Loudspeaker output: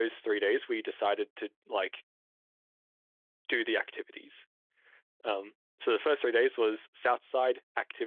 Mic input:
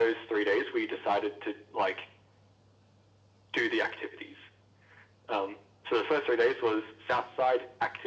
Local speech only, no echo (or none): none